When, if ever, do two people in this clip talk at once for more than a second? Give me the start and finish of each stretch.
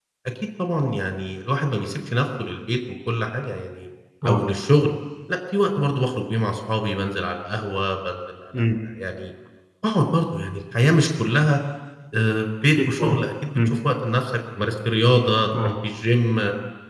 none

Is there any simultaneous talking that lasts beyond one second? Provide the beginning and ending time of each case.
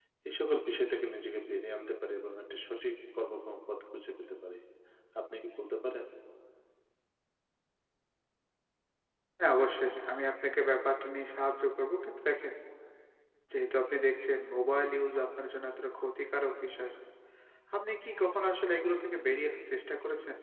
none

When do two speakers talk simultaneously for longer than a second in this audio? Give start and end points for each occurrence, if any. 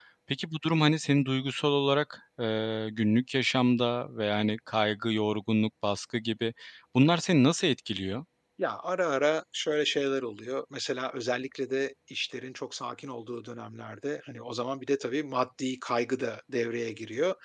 none

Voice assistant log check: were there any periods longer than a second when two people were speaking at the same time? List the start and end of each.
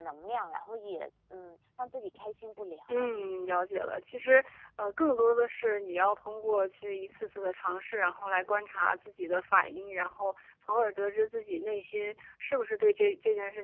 none

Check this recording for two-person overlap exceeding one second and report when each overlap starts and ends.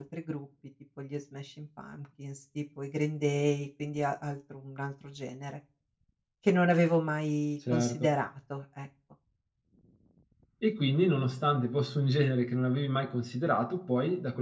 none

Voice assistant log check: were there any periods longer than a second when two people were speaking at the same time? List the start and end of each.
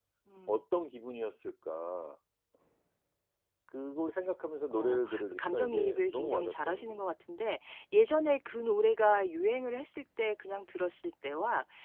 4.7-7.0

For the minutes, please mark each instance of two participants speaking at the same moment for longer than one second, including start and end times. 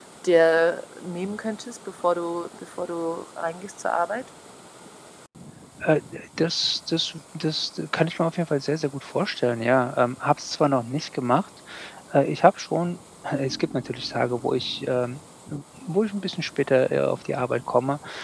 none

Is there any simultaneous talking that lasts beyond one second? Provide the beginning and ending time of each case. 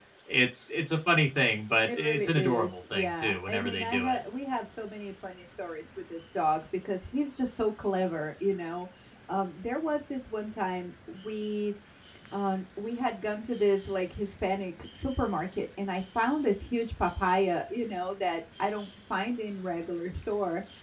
1.9-4.2

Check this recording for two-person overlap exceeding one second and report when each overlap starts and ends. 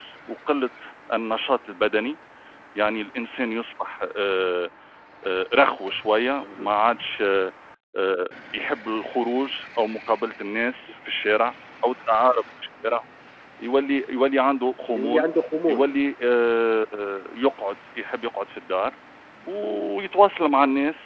none

